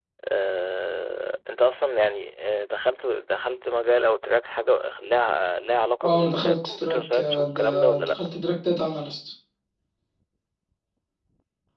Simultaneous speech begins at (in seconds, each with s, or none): 6.0 s